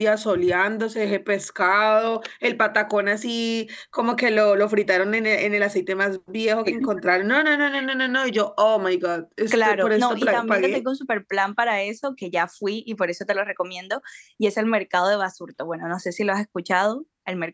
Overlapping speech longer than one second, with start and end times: 9.5-10.8

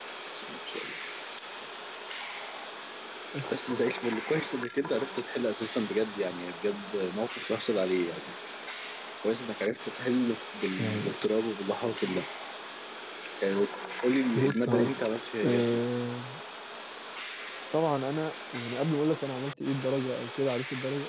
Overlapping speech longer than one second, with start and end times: 14.4-15.8

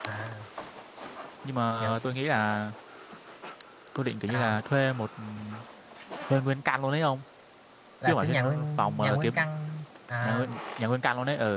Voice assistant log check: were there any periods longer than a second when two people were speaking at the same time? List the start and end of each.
8.1-9.4

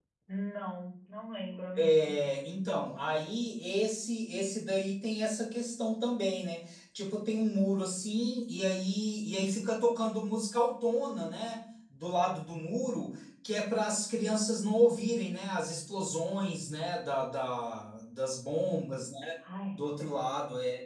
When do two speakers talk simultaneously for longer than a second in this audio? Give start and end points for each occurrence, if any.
none

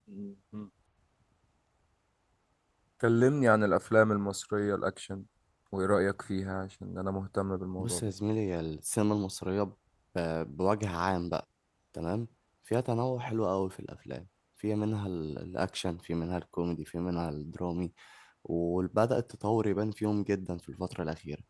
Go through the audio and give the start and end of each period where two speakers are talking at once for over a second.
none

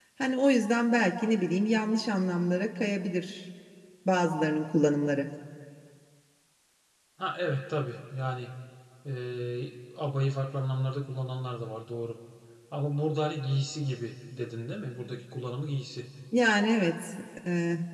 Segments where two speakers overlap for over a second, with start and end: none

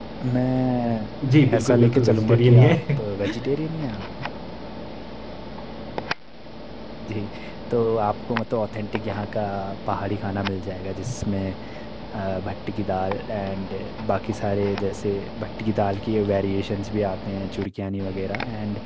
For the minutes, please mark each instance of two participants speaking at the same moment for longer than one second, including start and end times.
1.6-2.8

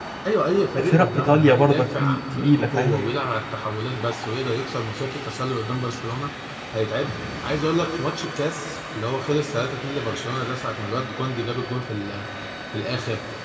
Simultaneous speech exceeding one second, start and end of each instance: 0.7-3.0

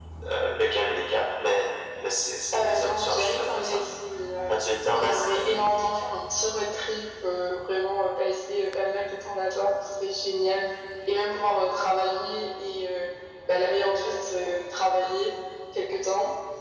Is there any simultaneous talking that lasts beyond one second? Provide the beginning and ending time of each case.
2.5-3.8

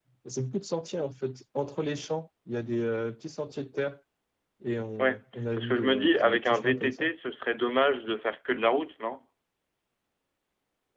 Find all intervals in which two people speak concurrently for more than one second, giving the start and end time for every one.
5.6-7.1

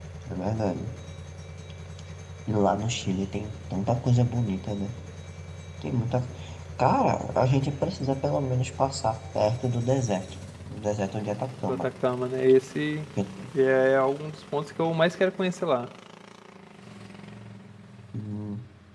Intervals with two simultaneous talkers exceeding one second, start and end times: none

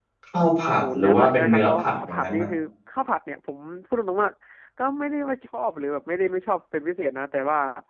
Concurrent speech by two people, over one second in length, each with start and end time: 0.9-2.5

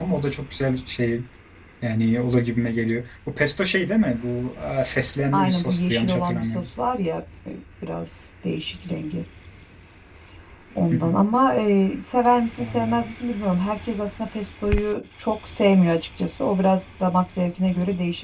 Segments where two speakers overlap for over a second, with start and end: 5.3-6.6

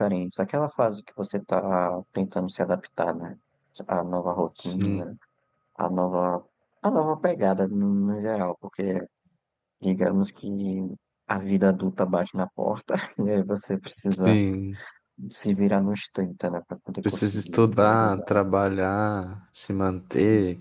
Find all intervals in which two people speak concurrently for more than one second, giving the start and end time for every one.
17.1-18.4

